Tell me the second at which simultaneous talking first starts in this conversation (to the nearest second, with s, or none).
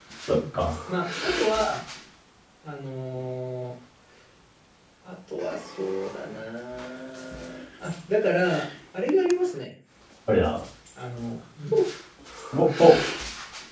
none